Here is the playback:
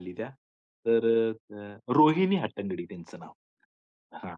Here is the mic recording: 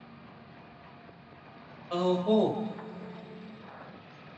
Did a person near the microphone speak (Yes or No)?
Yes